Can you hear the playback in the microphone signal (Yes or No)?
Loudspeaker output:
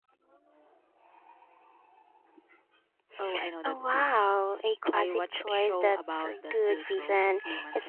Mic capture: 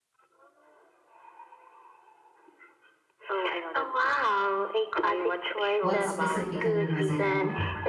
Yes